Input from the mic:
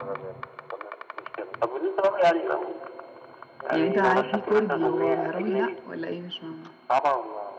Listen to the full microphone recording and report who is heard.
both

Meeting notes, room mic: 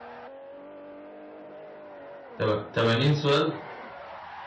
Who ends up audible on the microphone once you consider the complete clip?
user only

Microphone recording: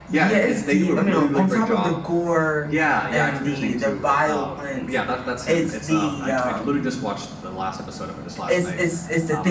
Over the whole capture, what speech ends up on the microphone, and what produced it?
both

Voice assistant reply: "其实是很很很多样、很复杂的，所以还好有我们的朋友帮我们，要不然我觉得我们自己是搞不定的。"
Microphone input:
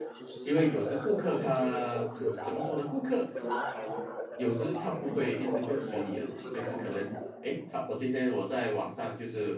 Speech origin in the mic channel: both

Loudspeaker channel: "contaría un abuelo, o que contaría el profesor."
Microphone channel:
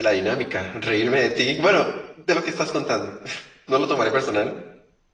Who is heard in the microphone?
user only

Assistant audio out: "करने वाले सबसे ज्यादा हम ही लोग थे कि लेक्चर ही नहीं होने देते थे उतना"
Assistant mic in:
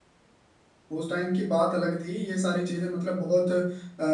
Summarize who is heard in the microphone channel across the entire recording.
user only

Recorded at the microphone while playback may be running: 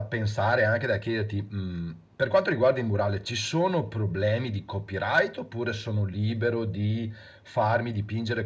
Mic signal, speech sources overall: echo only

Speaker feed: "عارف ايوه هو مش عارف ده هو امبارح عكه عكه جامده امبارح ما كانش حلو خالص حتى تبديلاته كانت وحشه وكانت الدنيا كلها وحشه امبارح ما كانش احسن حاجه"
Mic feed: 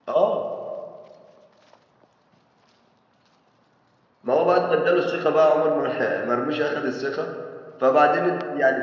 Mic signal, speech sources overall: user only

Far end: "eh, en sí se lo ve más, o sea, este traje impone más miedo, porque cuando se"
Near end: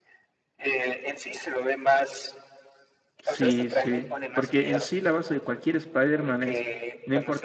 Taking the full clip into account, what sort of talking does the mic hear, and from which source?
both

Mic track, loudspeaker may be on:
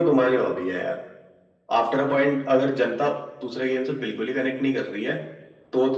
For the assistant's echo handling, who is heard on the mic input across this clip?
echo only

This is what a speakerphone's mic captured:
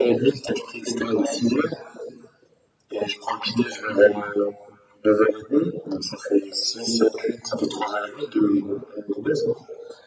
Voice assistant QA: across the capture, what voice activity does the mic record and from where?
echo only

